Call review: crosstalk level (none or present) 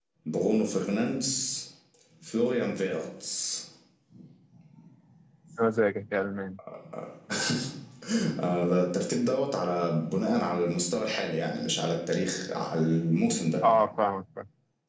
none